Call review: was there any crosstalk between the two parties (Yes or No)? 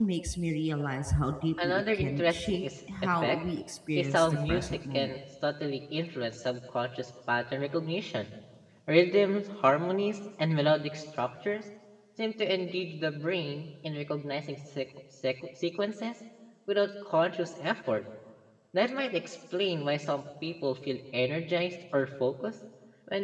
Yes